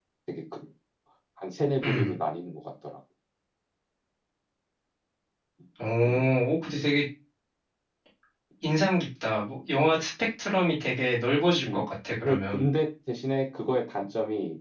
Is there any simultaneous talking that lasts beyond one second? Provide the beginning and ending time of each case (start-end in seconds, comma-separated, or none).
none